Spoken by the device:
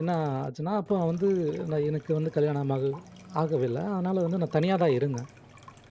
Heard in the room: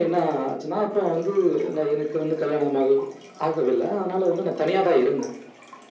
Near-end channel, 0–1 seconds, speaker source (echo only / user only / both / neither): echo only